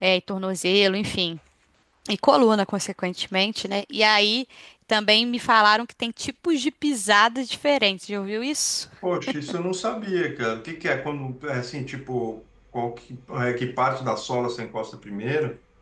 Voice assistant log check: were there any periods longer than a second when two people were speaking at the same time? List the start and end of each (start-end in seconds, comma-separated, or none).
none